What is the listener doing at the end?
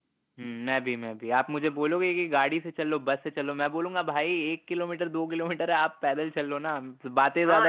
taking over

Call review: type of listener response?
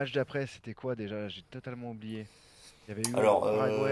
taking over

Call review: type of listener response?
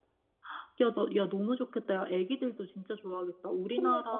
listening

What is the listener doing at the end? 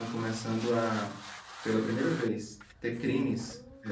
listening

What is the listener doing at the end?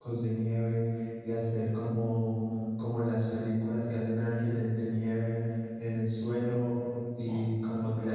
listening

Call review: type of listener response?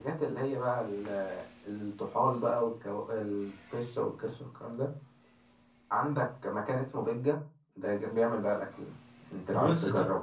taking over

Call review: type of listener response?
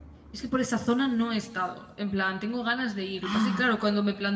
listening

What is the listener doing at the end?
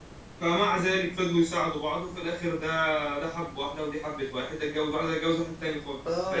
taking over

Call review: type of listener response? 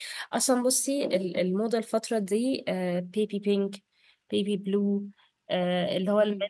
listening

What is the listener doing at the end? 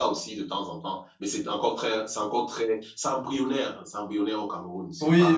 taking over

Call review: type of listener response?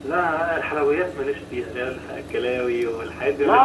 taking over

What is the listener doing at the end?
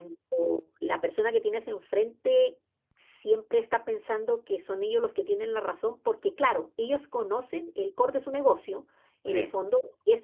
listening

